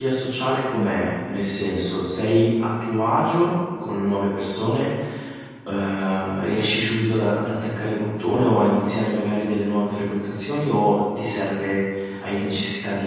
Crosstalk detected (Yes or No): No